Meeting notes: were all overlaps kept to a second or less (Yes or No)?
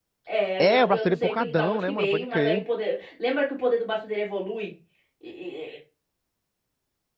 No